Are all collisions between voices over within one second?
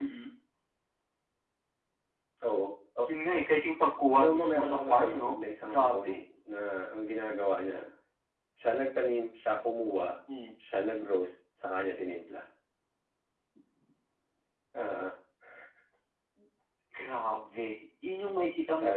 No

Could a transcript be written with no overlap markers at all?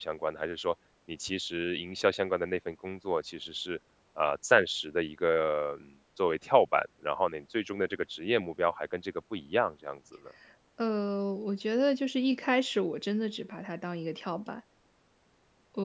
Yes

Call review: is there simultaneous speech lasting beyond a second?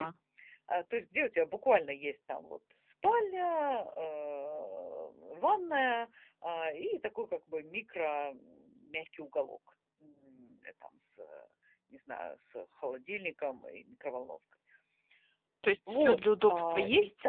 Yes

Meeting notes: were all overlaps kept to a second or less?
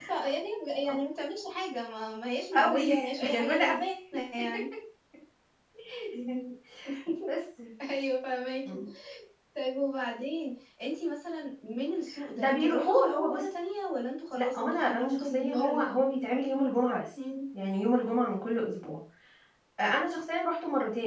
No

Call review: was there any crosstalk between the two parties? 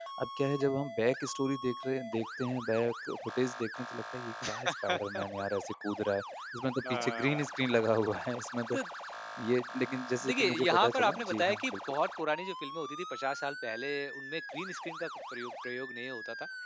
Yes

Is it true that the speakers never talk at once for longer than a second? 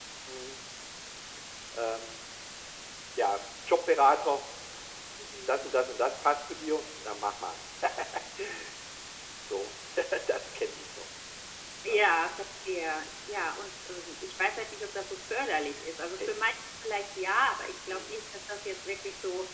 Yes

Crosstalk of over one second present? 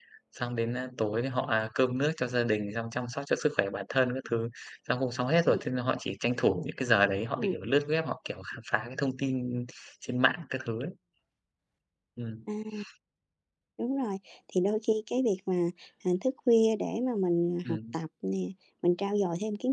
No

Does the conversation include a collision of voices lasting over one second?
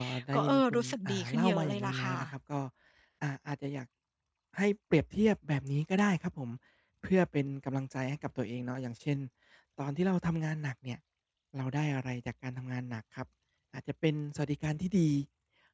Yes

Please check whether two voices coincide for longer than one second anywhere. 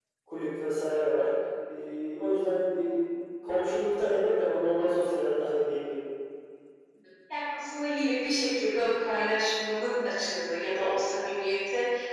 No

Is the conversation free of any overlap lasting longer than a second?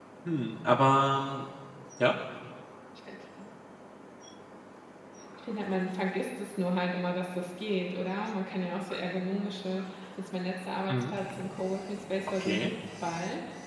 Yes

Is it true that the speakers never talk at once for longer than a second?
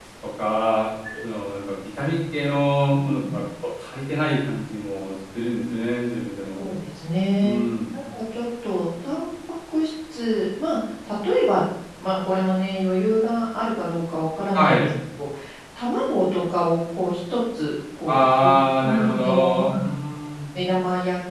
No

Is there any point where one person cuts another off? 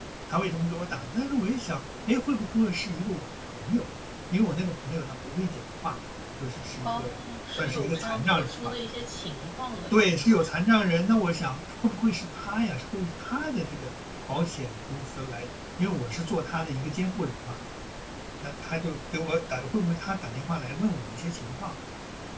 Yes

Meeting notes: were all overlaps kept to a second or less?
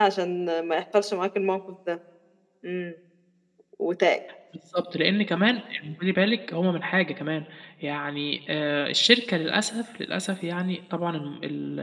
Yes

